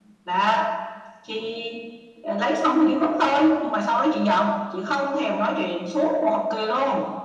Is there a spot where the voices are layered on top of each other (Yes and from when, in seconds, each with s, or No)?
No